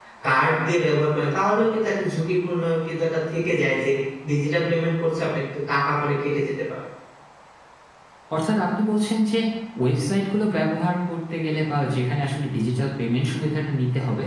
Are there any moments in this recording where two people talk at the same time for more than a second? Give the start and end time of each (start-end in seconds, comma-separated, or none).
none